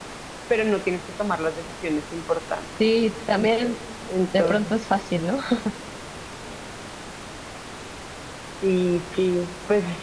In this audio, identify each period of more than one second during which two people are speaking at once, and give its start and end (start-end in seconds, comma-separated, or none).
none